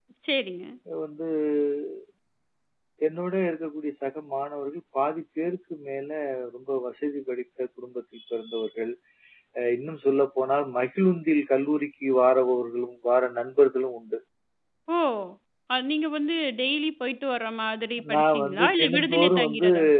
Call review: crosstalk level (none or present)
present